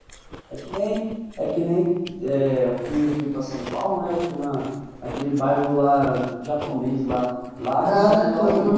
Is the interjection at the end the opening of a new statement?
No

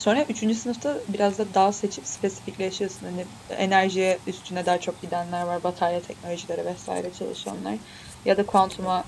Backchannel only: Yes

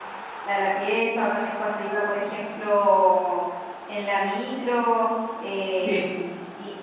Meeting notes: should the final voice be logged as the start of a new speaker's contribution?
No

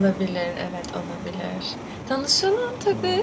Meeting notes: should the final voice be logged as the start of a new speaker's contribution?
No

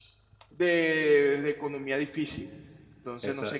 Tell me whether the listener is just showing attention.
No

